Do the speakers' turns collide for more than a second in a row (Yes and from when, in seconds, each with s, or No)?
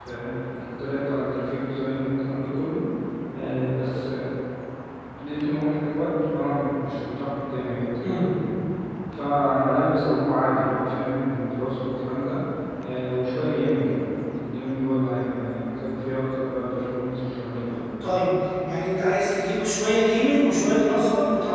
No